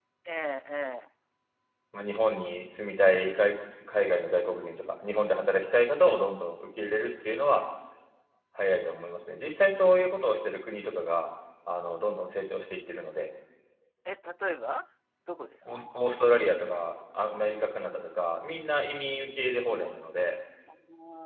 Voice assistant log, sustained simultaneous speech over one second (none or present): none